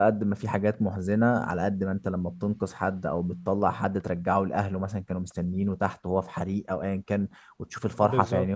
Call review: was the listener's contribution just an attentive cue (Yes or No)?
Yes